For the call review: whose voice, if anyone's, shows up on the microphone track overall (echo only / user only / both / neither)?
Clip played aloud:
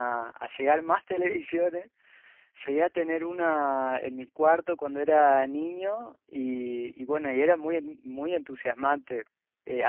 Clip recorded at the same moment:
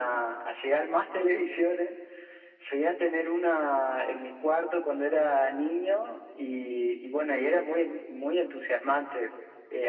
echo only